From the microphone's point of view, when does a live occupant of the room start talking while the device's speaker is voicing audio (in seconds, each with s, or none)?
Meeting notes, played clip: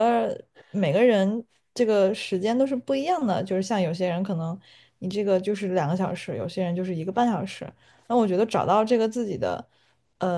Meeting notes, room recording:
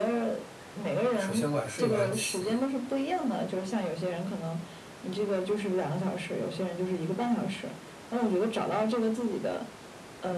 1.2 s